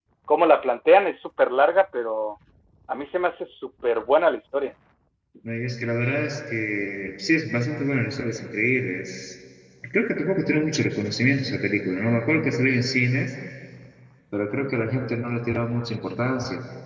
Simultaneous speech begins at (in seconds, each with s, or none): none